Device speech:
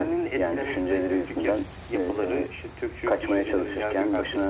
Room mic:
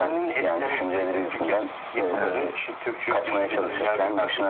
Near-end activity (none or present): present